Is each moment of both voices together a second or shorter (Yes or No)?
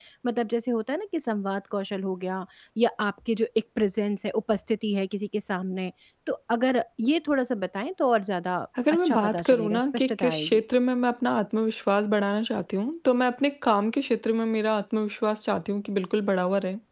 No